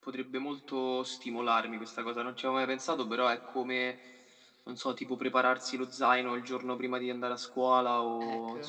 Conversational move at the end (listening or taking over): listening